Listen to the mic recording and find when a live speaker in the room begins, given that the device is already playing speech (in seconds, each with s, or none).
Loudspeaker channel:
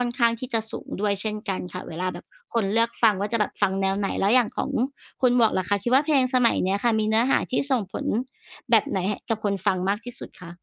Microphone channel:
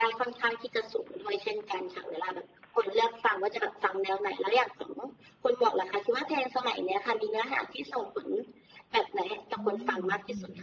9.5 s